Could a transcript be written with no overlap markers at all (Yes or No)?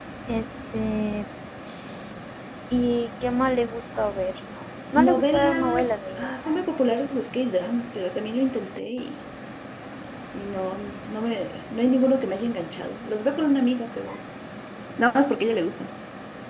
No